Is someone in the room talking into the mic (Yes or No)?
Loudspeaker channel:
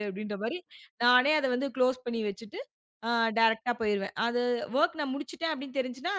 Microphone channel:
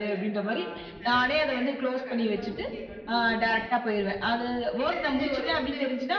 Yes